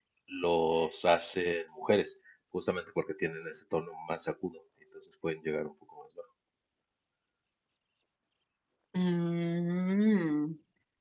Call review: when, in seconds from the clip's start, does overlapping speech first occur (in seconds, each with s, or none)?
none